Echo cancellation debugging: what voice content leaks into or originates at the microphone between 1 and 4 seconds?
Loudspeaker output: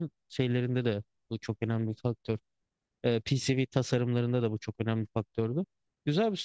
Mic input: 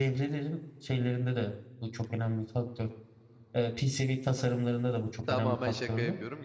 echo only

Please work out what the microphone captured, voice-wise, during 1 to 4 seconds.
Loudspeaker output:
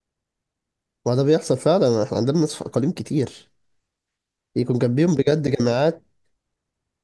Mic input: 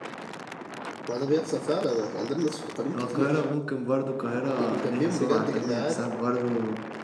both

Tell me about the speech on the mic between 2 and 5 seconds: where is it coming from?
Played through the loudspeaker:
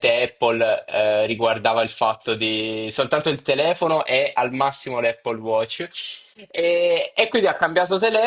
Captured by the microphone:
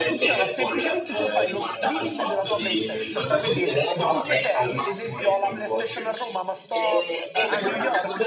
both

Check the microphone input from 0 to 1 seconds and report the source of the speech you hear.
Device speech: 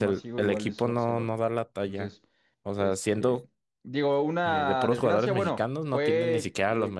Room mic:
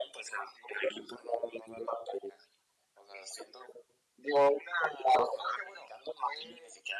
echo only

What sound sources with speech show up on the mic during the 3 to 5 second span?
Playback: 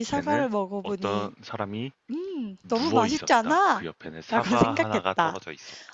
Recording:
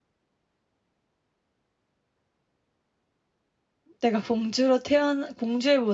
user only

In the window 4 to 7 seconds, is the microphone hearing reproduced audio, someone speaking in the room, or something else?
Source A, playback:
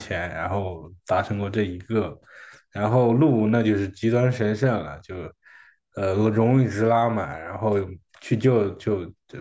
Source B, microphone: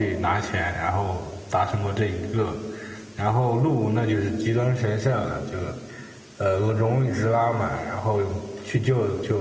echo only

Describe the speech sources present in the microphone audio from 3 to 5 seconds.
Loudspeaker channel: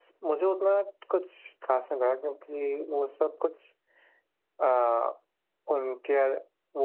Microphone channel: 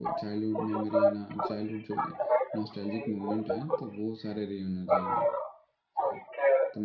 both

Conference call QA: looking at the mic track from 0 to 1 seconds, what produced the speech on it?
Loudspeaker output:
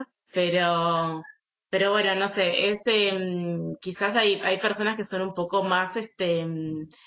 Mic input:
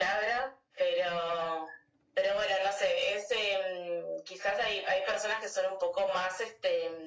echo only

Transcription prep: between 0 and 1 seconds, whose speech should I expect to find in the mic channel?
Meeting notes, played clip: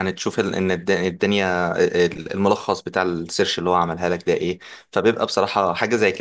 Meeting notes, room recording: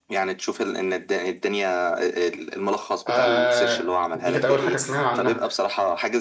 echo only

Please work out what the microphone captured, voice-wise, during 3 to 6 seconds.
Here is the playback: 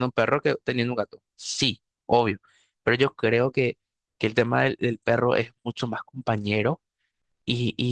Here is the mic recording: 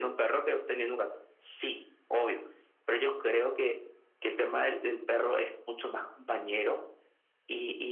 echo only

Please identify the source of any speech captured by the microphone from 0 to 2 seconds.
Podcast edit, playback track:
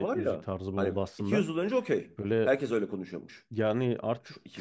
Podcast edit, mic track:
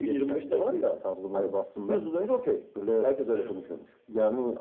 echo only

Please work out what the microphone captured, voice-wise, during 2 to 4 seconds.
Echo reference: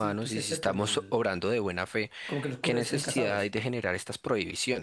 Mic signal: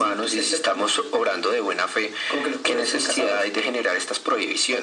echo only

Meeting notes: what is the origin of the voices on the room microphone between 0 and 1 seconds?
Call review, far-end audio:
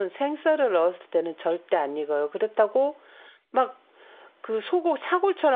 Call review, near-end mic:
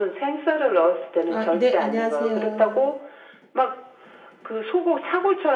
echo only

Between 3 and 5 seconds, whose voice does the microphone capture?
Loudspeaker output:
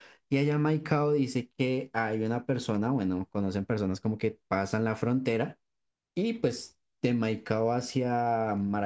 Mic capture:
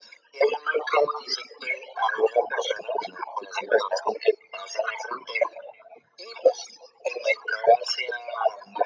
echo only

